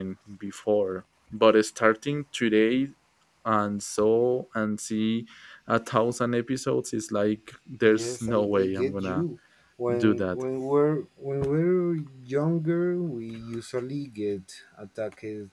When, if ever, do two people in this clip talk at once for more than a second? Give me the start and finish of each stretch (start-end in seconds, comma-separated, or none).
7.9-9.2